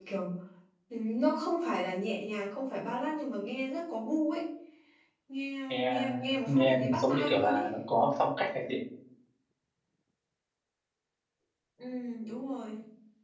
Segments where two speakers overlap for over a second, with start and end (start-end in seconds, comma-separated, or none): 6.5-7.7